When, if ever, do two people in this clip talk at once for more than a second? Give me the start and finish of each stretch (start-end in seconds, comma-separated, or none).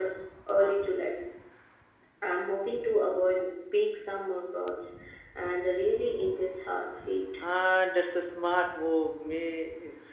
none